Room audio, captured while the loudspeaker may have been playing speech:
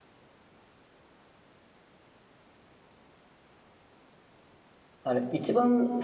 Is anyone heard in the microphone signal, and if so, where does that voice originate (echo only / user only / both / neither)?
user only